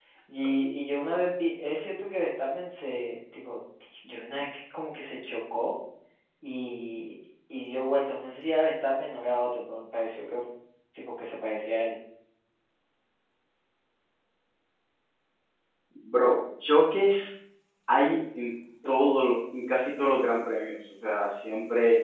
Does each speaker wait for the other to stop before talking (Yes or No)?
Yes